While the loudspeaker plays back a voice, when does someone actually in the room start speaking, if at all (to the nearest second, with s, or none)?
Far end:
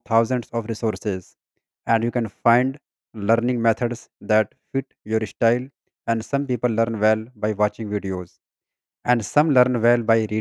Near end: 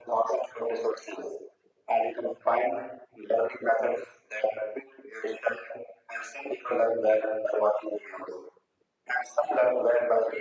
none